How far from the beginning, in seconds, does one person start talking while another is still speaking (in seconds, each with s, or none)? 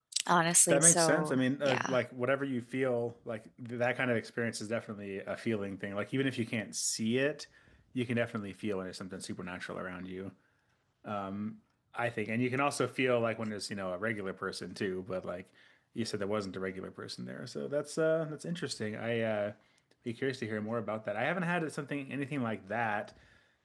0.7 s